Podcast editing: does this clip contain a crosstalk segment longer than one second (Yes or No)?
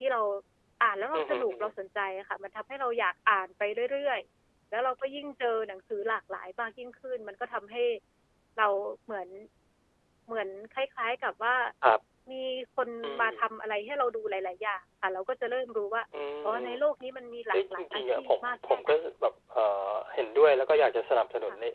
Yes